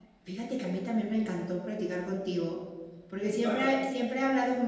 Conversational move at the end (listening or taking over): listening